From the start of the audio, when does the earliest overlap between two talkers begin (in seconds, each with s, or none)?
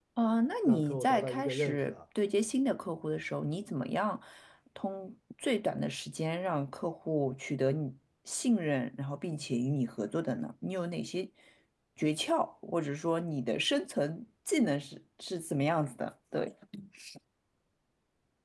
0.6 s